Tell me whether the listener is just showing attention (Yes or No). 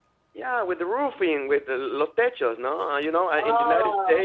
Yes